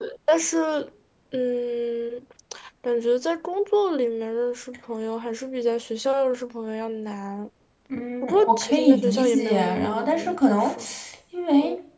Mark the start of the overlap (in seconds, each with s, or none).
8.2 s